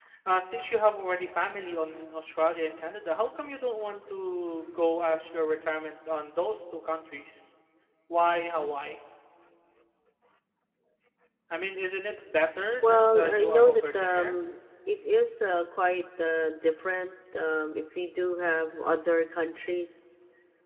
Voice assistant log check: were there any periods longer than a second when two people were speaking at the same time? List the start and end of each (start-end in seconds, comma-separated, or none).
12.8-14.4